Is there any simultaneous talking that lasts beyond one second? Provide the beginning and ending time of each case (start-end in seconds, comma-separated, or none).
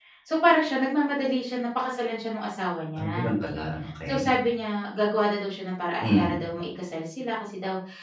none